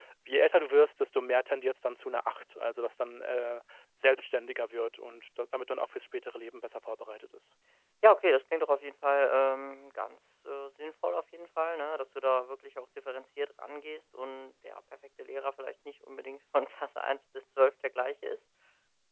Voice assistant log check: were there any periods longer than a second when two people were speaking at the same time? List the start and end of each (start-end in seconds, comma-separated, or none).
none